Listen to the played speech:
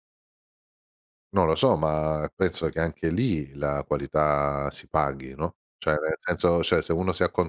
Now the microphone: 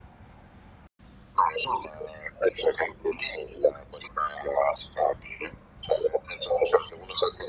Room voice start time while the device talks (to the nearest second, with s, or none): none